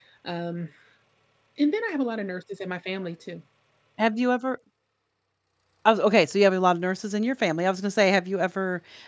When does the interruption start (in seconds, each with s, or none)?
none